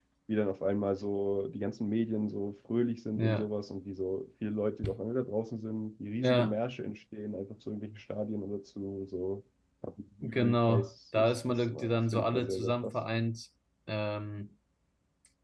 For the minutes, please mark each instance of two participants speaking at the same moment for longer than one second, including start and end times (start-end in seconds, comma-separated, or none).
10.2-12.9